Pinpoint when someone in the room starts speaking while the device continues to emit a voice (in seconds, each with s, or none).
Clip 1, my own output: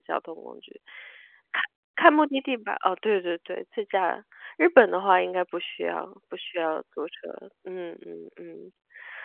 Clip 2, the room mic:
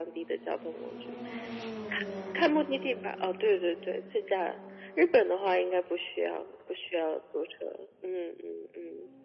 none